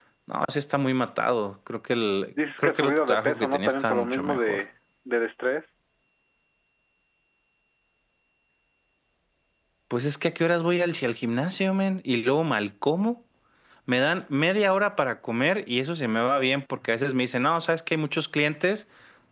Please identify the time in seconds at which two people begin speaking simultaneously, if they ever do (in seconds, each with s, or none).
2.6 s